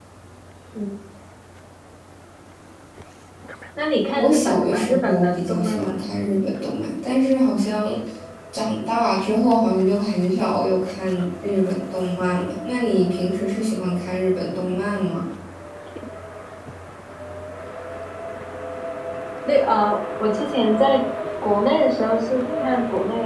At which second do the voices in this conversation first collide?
4.1 s

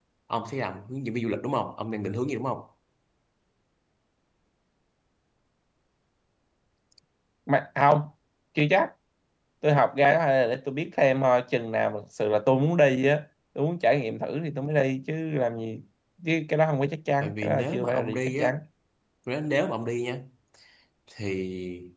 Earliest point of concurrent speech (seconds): 17.2 s

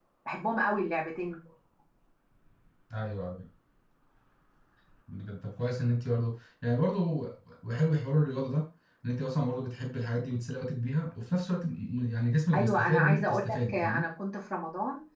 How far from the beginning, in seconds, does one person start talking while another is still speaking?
12.5 s

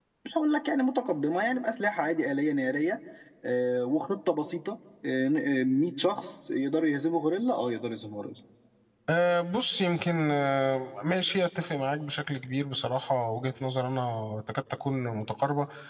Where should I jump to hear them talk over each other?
none

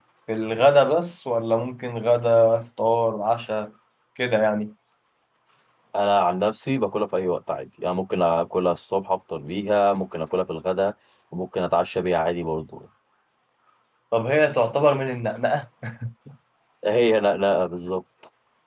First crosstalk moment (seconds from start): none

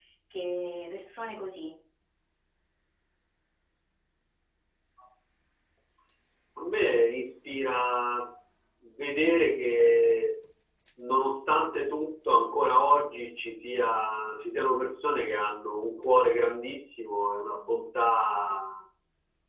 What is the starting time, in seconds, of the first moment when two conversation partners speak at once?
none

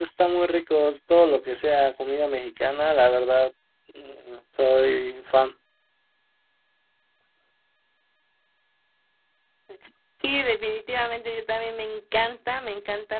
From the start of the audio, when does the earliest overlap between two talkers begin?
none

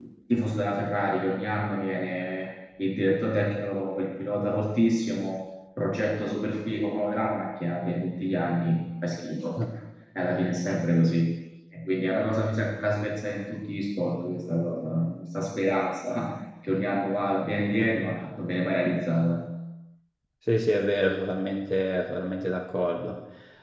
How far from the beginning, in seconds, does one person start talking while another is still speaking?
none

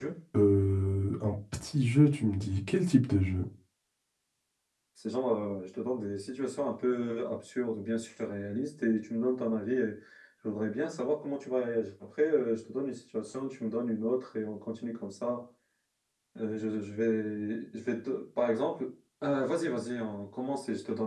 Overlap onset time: none

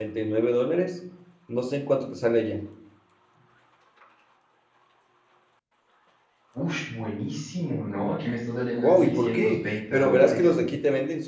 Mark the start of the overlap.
8.8 s

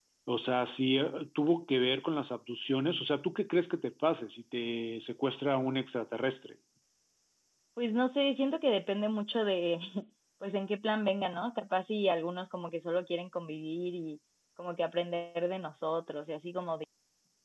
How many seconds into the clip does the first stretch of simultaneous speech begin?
none

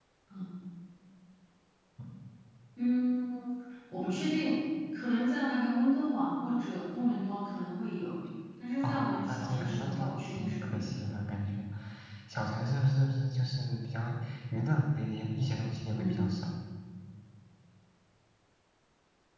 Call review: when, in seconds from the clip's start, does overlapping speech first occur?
8.8 s

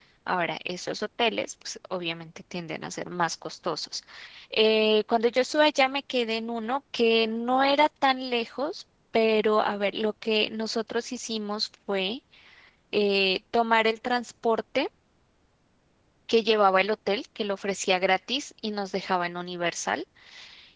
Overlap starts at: none

